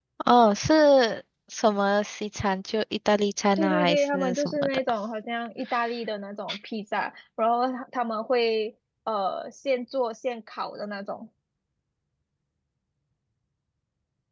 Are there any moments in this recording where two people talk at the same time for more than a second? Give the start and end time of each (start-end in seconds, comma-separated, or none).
3.6-4.8